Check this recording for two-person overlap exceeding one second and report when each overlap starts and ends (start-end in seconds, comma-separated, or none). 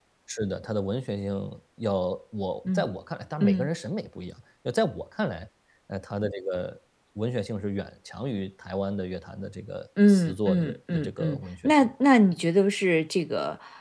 10.1-11.9